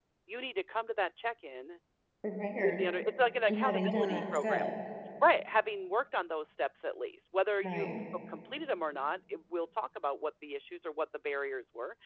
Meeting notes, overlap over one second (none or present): present